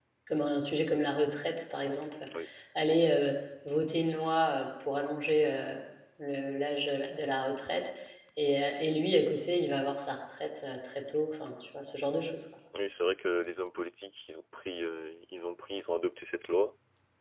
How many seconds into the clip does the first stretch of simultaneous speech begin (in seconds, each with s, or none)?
none